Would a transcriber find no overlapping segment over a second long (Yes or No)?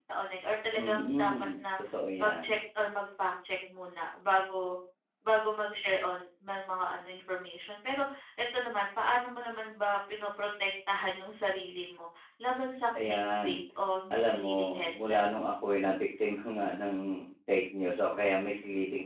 No